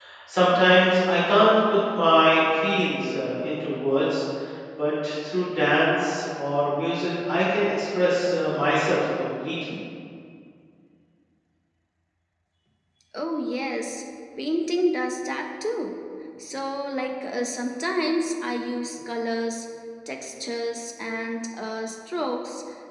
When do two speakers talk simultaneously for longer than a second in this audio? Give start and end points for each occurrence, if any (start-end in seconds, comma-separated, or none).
none